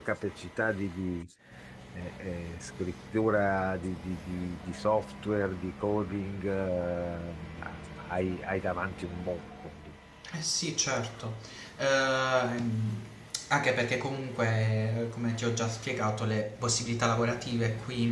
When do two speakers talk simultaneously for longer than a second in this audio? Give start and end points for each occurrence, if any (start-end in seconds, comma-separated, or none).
none